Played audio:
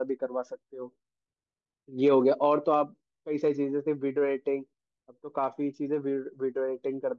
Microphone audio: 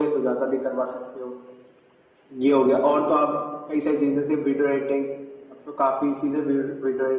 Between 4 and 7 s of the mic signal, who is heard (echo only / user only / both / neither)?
echo only